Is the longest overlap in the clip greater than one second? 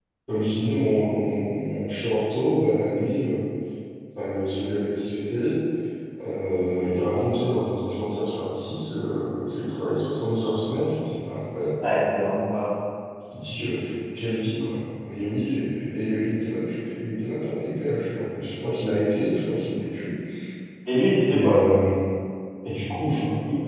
No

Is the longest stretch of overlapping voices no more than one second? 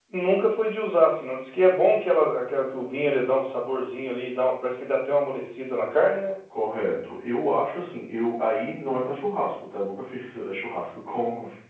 Yes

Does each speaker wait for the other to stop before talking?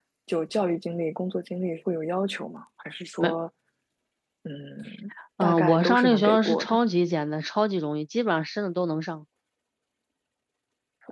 No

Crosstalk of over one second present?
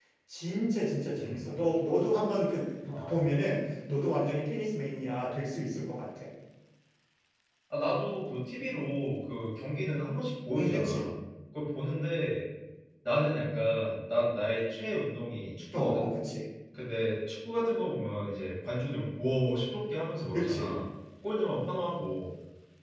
No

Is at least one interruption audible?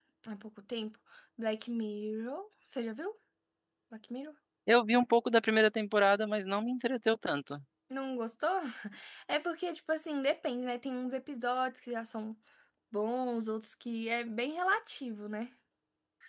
No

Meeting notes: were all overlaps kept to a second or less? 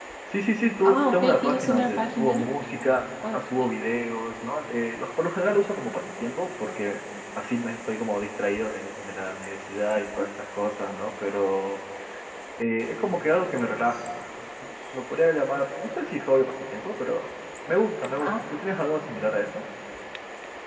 No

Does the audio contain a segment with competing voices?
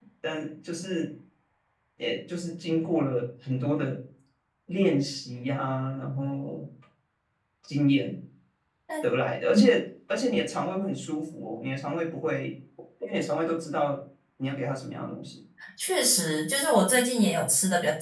No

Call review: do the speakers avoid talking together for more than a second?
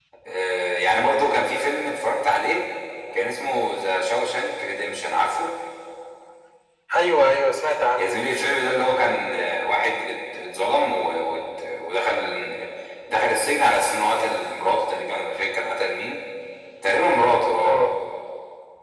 Yes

